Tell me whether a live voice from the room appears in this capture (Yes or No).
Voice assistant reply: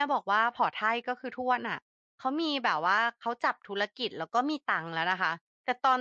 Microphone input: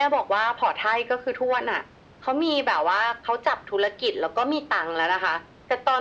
No